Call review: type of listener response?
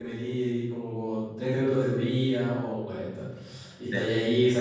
listening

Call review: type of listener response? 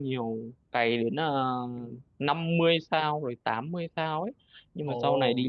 listening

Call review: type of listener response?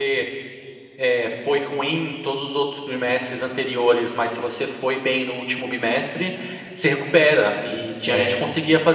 listening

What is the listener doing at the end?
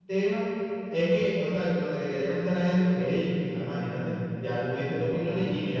listening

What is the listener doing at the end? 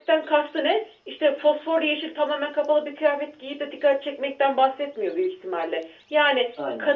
listening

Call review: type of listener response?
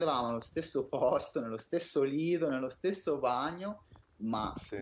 listening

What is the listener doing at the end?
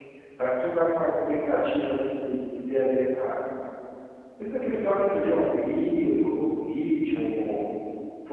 listening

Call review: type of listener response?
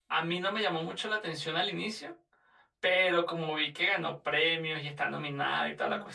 listening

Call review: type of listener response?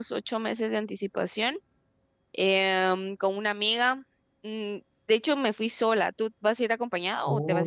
taking over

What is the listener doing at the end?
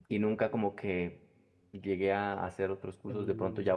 listening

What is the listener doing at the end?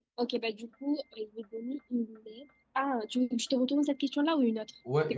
taking over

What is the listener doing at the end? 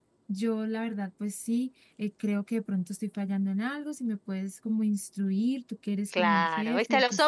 taking over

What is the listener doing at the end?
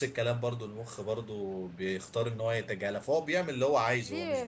taking over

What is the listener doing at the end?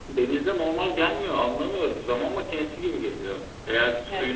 listening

